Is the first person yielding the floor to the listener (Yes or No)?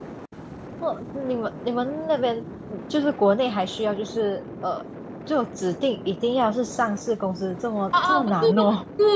Yes